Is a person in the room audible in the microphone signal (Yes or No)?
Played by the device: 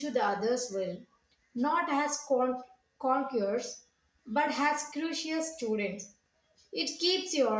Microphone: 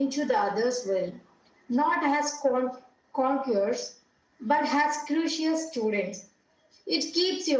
No